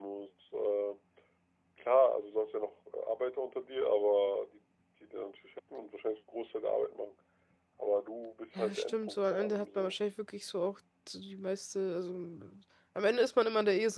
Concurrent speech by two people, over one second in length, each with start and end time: 8.6-10.0

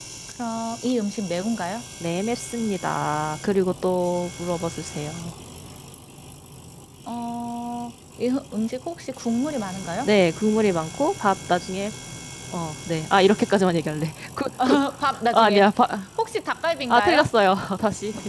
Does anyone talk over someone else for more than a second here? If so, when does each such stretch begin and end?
none

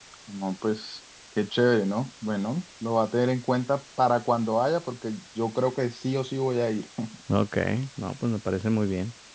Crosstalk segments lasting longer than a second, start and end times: none

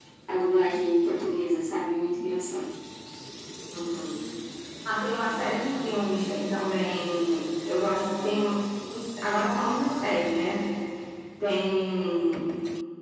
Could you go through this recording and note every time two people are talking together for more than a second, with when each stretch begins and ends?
none

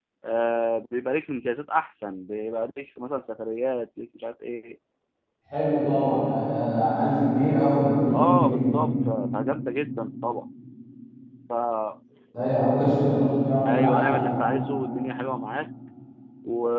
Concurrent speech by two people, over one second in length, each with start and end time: none

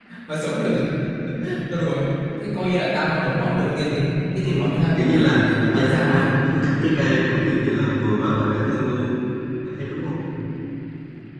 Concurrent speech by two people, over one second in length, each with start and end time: 5.0-6.3

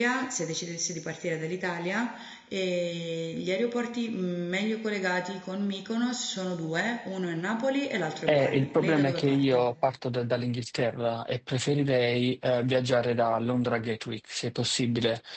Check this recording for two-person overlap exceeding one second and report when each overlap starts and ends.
8.3-9.7

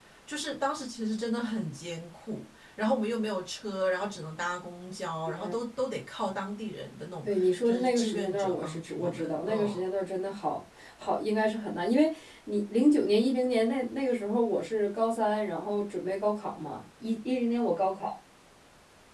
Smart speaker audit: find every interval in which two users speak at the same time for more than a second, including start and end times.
7.7-9.8

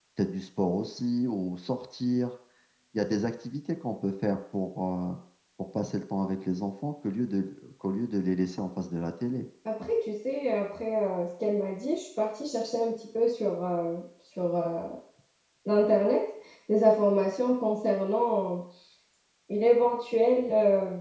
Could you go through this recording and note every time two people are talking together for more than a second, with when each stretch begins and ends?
none

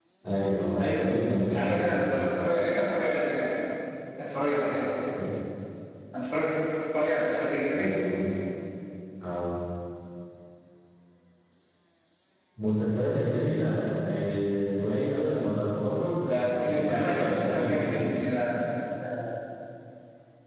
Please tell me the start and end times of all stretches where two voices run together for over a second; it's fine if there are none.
0.8-2.1, 16.2-18.1

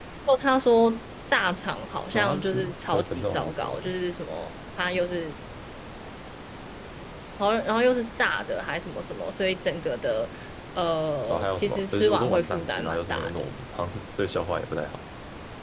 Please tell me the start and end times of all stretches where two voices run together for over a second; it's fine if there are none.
2.1-3.9, 11.3-13.5

